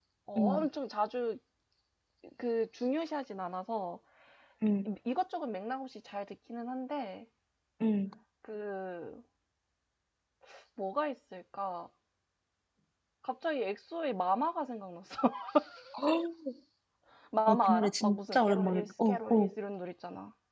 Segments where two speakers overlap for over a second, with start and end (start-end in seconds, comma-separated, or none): 17.5-19.5